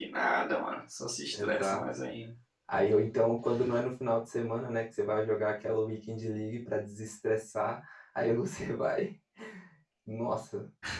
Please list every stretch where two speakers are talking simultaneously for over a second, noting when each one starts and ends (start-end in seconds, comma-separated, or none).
none